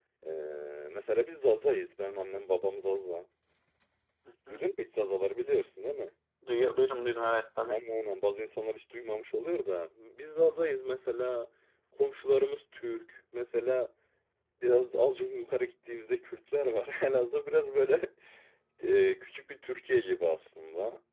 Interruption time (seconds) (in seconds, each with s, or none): none